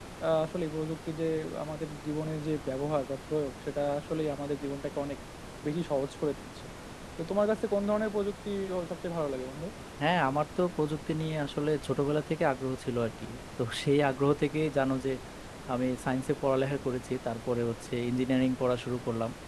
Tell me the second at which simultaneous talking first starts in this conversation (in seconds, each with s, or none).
none